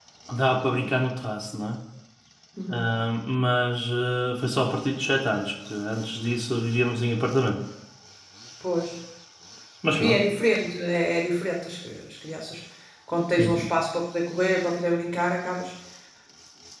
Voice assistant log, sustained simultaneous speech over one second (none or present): none